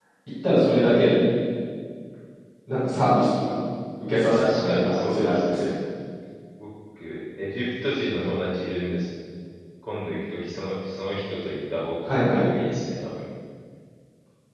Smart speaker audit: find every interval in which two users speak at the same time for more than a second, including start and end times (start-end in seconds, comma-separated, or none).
4.3-5.7